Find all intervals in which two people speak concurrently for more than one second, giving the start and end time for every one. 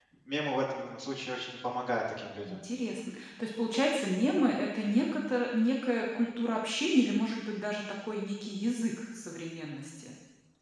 none

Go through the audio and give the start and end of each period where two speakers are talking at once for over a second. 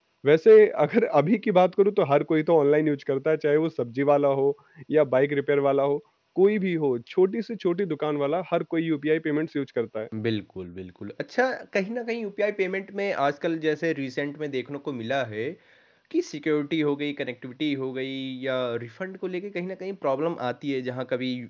none

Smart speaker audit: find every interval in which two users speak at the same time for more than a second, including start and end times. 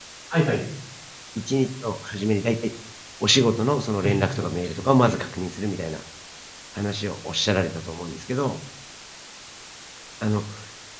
4.0-5.2

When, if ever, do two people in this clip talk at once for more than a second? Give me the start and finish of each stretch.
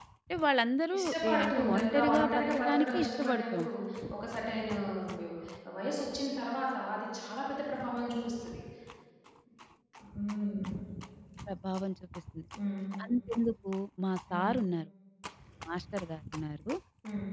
1.0-3.7

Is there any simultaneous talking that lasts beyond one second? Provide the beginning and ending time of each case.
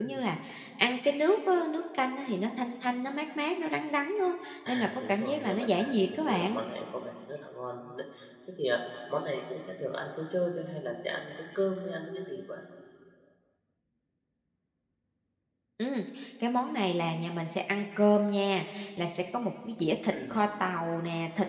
4.7-6.6

